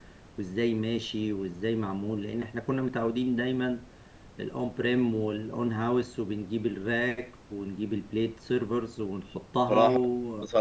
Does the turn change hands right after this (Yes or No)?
Yes